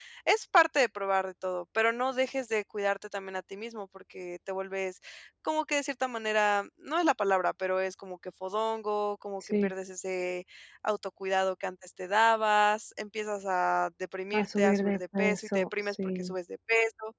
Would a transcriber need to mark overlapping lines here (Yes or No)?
Yes